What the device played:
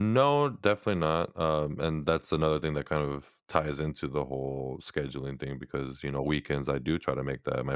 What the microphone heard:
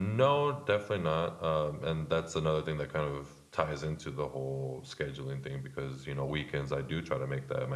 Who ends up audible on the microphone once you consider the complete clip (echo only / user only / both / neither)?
echo only